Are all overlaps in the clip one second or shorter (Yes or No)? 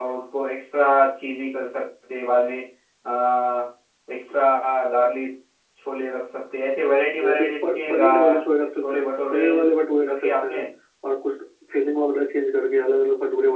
No